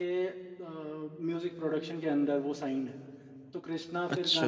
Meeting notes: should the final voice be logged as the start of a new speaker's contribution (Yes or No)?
No